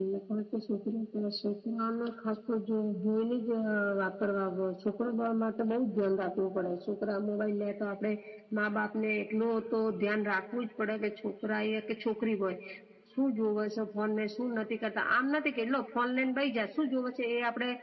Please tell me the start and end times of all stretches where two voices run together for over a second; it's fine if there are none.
none

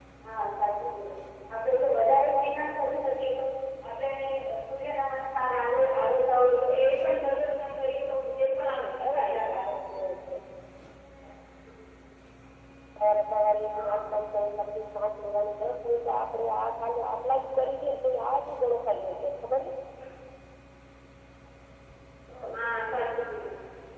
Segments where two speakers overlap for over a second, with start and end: 8.7-9.9

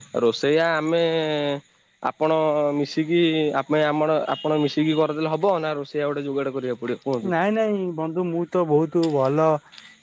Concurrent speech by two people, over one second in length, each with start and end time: none

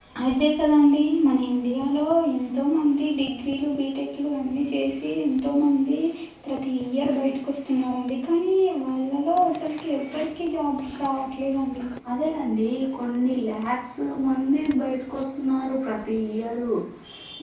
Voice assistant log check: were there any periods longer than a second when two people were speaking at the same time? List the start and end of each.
none

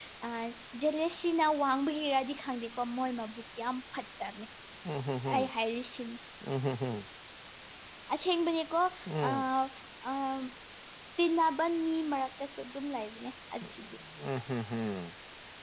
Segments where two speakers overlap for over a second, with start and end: none

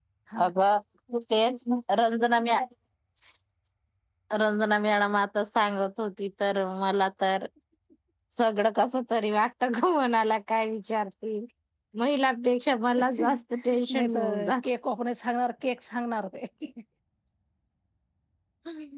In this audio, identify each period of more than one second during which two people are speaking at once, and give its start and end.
13.0-14.7

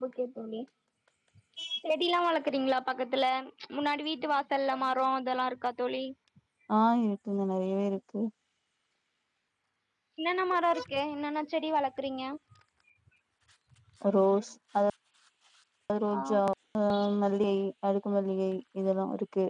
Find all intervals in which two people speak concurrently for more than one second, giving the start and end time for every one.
none

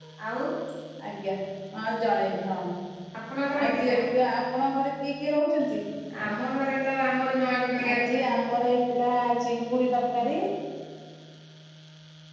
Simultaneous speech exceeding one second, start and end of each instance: none

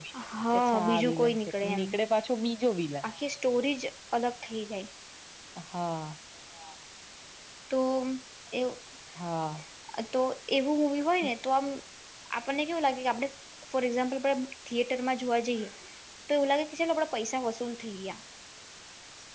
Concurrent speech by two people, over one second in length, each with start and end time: 0.5-1.8

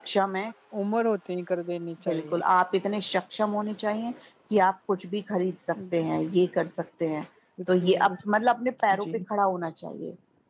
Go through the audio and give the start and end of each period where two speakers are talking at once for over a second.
none

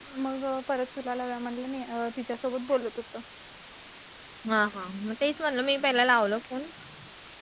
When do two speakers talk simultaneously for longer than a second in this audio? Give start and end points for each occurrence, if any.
none

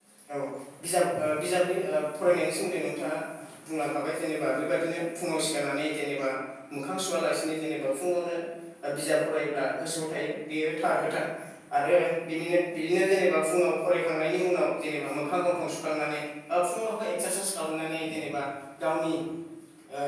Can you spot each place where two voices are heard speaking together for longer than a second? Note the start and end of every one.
none

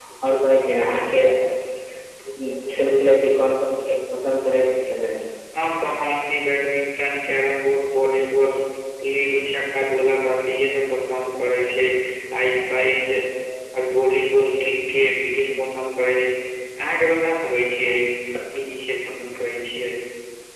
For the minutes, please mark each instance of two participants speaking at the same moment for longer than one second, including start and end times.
none

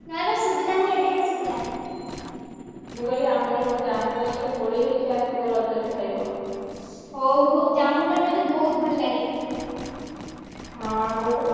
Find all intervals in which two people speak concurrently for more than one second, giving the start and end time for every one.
none

